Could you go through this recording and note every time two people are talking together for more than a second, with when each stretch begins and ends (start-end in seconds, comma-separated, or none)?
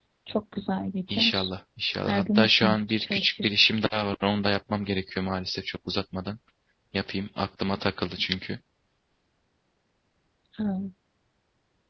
2.0-3.5